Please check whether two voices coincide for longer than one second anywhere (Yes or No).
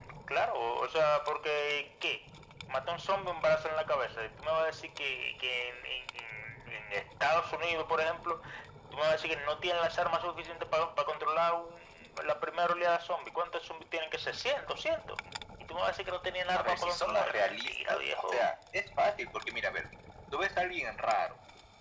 Yes